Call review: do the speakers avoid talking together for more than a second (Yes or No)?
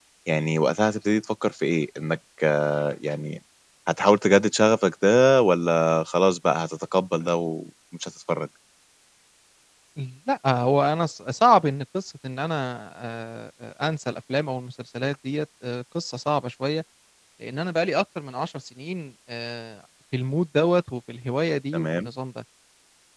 Yes